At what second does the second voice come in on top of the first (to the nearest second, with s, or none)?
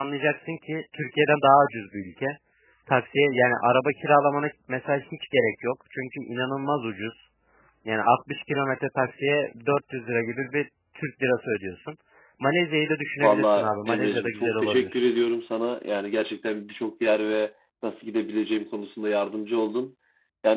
13 s